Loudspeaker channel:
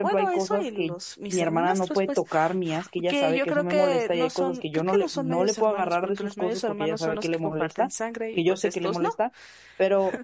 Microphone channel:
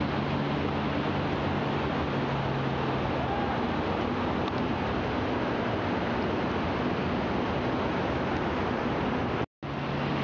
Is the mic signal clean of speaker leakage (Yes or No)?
Yes